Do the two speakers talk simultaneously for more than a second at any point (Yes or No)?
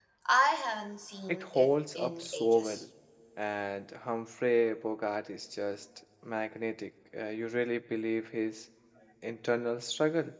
Yes